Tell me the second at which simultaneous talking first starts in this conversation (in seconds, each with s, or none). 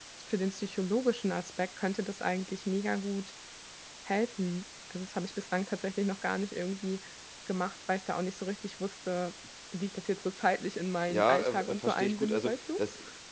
11.1 s